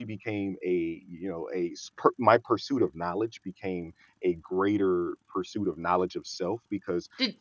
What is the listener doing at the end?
listening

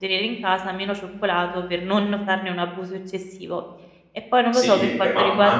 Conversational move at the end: taking over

